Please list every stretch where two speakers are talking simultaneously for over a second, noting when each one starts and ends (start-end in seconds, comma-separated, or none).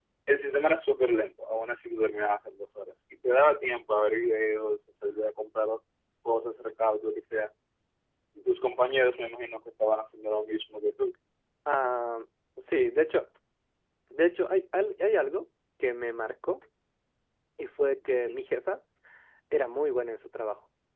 none